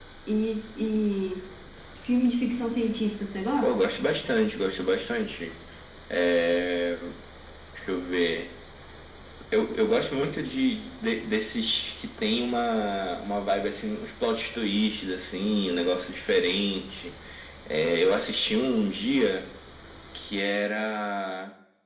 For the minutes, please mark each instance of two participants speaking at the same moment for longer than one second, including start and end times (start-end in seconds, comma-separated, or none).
none